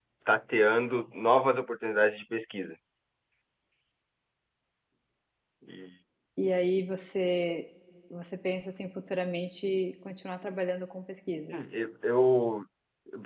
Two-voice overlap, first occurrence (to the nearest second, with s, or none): none